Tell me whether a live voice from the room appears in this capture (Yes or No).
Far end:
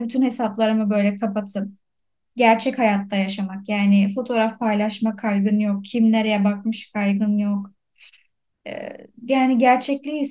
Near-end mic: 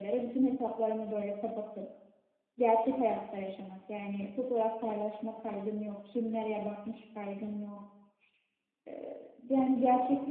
No